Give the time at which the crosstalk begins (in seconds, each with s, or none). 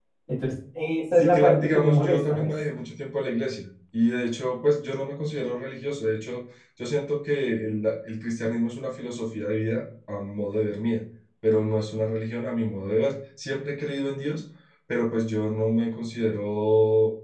1.2 s